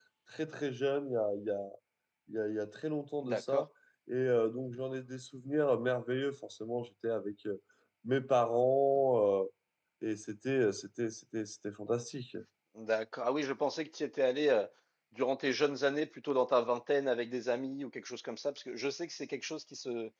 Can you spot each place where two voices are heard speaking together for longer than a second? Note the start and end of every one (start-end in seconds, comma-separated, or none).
none